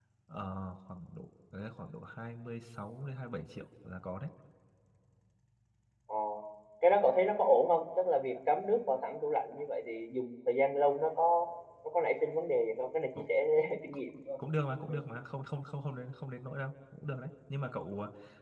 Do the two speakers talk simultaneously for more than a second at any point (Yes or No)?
No